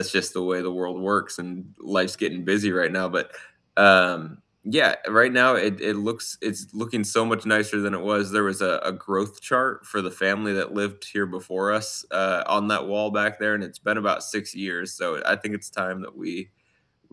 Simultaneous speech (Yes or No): No